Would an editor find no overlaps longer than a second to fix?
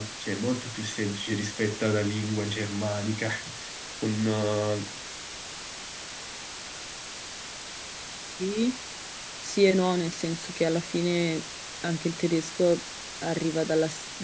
Yes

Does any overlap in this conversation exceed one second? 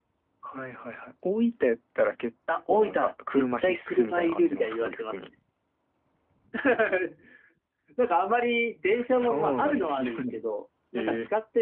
Yes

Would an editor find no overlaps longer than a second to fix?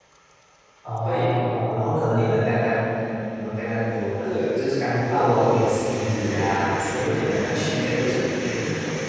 No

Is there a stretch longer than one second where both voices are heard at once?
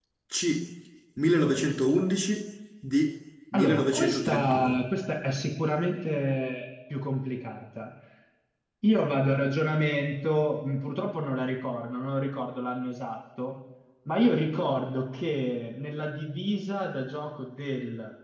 Yes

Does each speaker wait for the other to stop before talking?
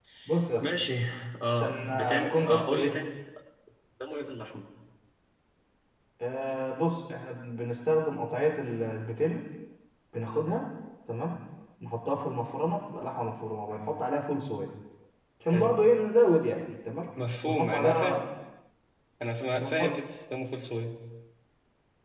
No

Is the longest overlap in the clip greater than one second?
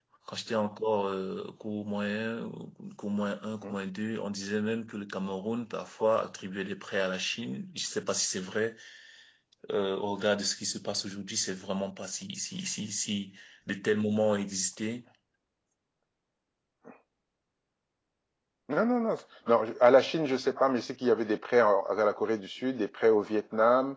No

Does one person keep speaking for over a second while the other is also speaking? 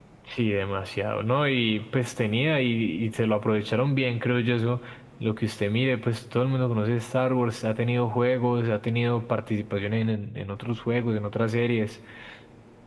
No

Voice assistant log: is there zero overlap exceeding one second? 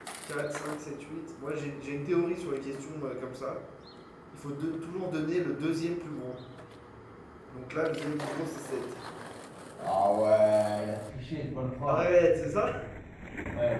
Yes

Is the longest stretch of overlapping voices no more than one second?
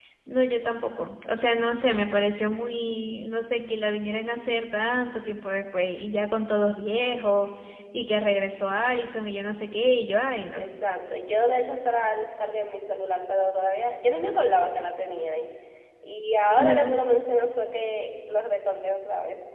Yes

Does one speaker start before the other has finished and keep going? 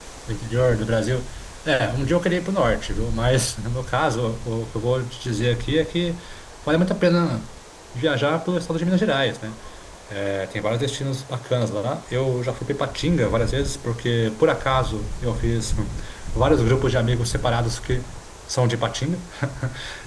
No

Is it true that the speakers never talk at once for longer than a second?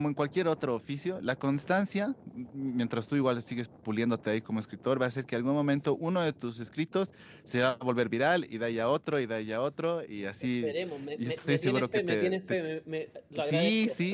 No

